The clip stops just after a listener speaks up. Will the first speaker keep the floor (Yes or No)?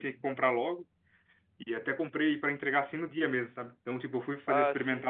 Yes